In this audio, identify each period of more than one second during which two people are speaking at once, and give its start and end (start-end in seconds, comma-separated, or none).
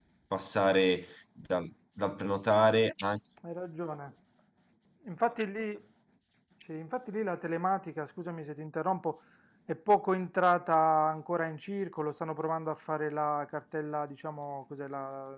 none